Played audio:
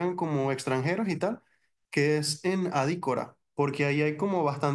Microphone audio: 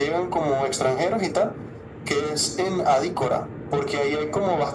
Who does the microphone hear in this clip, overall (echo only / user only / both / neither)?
echo only